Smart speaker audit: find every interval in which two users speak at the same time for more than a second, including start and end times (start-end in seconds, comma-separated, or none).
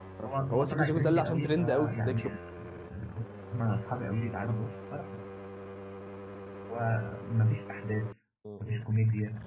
0.5-2.3